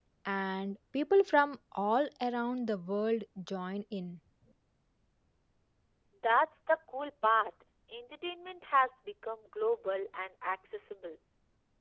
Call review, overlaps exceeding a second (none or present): none